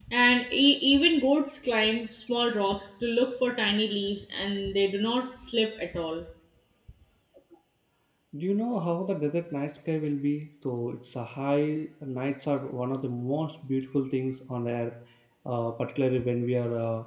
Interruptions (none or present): none